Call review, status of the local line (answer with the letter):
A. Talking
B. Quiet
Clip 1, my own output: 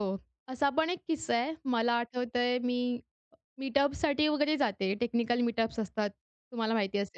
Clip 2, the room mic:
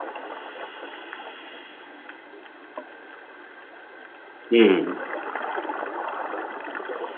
A